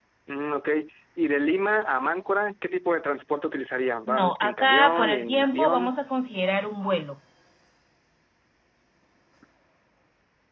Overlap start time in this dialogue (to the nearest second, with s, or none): 4 s